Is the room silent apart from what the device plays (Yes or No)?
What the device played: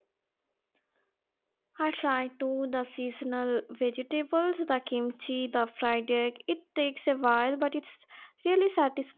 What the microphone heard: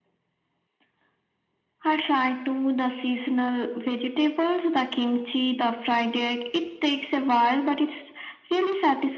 Yes